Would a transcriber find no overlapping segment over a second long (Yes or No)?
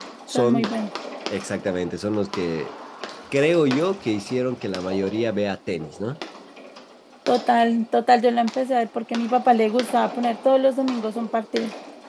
Yes